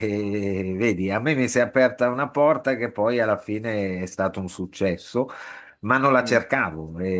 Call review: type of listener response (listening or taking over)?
listening